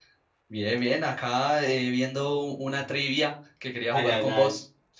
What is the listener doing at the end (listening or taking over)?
taking over